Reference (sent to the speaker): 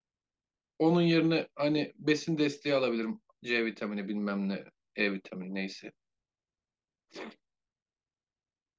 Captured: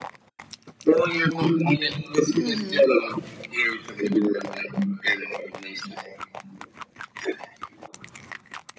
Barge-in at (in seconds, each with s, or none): 2.4 s